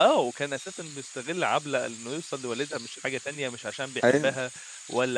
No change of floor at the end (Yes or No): Yes